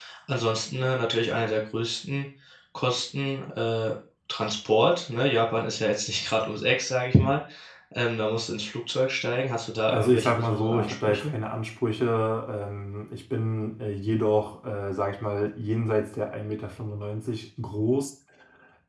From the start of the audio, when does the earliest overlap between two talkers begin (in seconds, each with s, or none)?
9.9 s